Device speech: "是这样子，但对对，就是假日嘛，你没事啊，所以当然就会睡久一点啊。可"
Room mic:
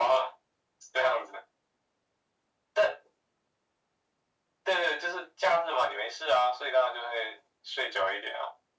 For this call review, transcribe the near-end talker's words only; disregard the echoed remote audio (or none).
none